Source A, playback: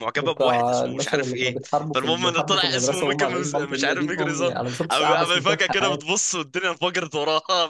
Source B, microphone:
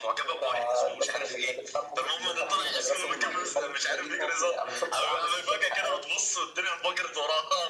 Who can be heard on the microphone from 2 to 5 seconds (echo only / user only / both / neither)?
both